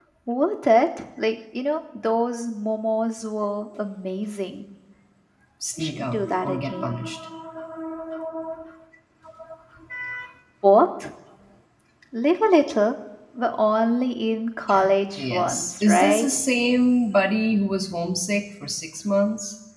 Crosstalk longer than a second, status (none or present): present